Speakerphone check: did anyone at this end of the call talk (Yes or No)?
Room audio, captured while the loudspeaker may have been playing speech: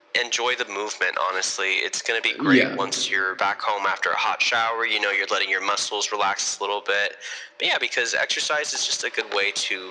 Yes